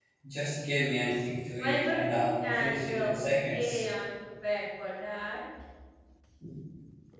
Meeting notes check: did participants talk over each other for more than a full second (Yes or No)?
Yes